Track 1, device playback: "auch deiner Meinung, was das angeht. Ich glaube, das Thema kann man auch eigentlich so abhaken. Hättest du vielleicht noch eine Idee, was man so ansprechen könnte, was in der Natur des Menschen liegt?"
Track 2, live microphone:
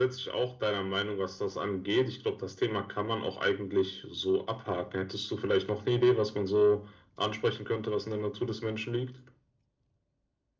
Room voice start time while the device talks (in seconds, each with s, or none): none